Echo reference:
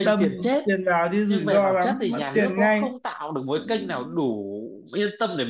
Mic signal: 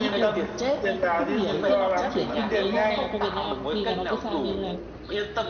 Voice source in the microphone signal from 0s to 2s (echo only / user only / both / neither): both